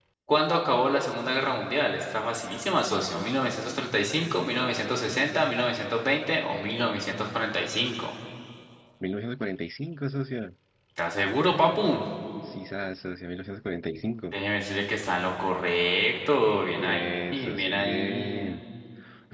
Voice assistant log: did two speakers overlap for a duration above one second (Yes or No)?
Yes